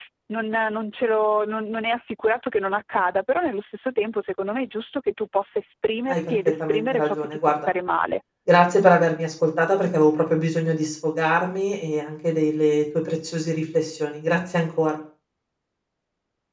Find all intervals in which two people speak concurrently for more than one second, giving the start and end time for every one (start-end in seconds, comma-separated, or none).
6.1-7.7